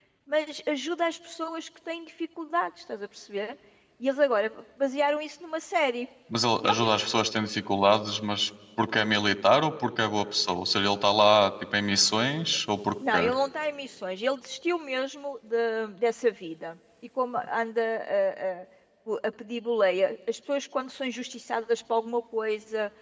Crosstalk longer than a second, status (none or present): none